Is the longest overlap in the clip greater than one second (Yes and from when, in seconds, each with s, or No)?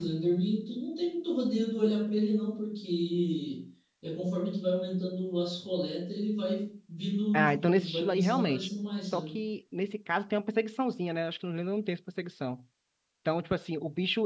Yes, from 7.3 s